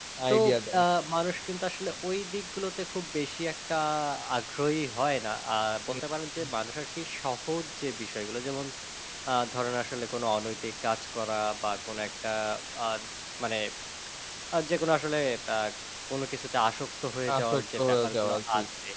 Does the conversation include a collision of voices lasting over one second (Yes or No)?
Yes